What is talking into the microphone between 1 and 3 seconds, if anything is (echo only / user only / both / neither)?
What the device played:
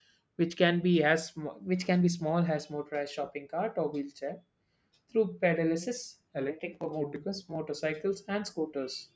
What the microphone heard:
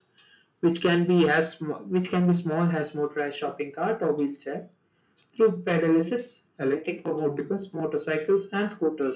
echo only